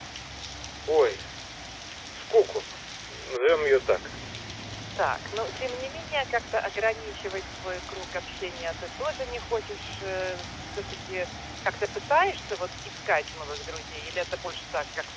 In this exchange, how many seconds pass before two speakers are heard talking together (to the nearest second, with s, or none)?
none